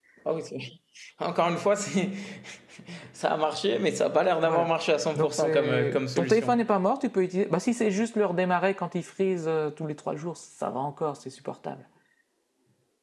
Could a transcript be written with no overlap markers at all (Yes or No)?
No